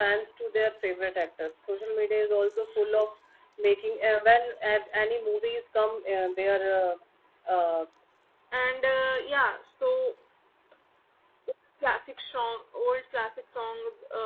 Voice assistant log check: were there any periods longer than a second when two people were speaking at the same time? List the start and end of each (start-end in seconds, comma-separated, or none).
none